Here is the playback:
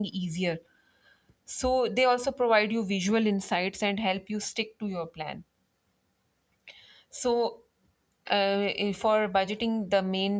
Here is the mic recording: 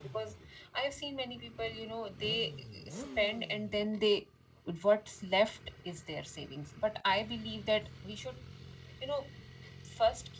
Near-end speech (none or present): present